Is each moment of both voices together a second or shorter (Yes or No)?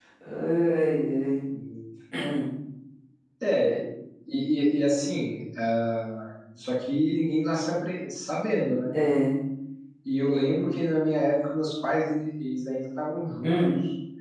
Yes